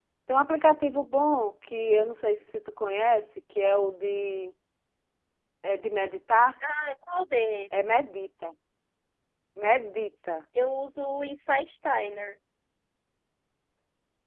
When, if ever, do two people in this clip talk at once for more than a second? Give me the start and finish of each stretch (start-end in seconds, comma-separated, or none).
none